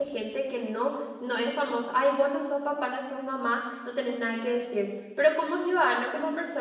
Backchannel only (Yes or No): Yes